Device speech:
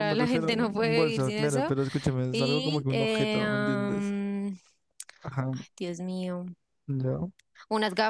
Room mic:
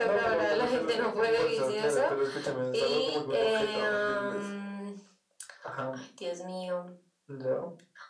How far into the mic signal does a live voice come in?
none

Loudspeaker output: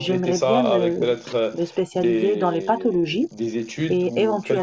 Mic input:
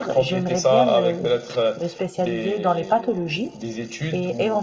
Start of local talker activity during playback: none

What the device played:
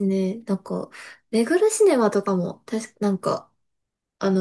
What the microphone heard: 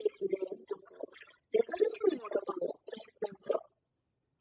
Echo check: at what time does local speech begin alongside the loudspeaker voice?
none

